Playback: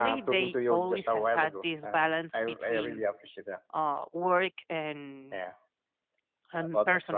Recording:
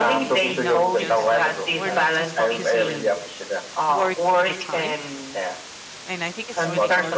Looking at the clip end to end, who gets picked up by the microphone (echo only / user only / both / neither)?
both